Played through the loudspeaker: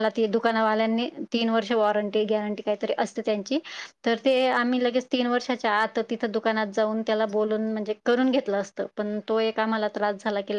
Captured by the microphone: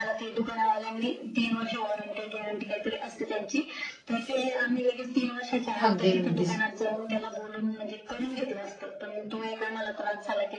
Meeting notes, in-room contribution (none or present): present